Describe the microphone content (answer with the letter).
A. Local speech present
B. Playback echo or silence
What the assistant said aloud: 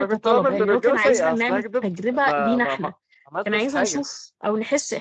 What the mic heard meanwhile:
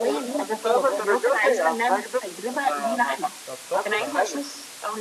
A